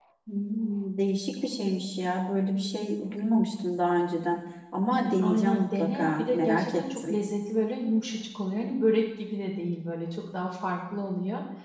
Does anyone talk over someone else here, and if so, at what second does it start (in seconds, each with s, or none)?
5.2 s